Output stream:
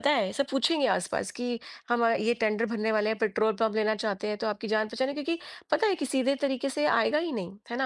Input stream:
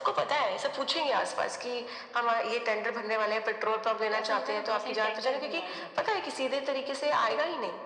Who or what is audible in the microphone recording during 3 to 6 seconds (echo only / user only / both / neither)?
both